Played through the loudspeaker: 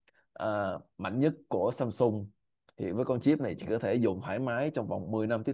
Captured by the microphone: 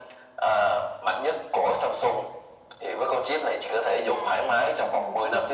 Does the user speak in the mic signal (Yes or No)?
Yes